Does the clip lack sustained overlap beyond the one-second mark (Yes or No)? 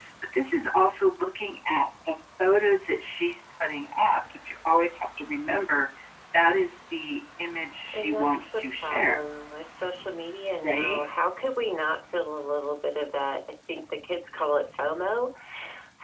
No